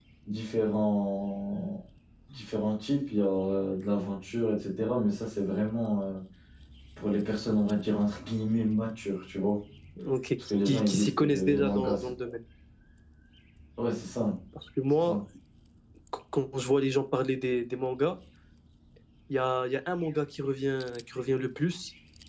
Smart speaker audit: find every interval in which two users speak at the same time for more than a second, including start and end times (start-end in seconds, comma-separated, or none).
10.6-12.1